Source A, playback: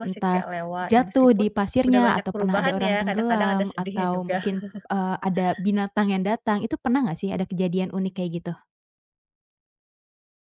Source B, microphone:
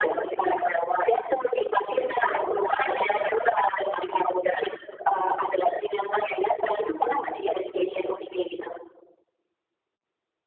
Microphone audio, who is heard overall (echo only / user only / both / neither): echo only